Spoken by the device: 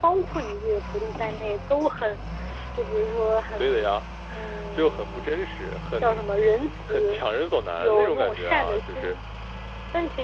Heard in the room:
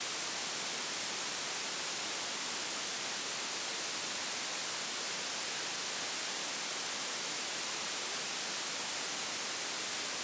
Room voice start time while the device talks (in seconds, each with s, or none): none